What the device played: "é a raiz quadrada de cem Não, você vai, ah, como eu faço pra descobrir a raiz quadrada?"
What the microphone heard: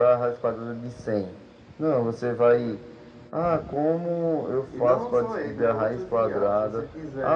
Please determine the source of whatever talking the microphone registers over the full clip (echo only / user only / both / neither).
both